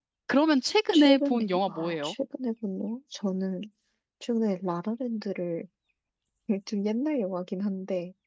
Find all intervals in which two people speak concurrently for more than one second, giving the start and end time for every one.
0.9-2.1

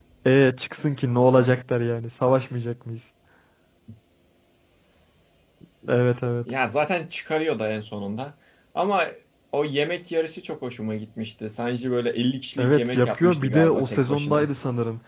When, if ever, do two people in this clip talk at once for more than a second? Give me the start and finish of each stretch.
12.6-14.5

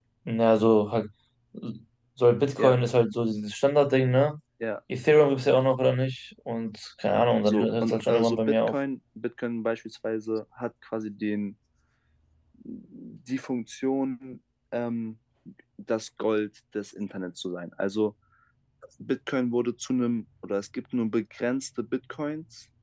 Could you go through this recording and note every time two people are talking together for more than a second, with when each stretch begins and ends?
7.4-8.7

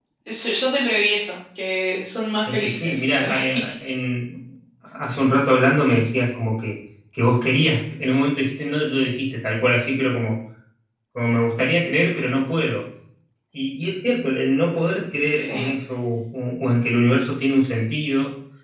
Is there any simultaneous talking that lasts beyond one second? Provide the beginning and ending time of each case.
2.5-3.7

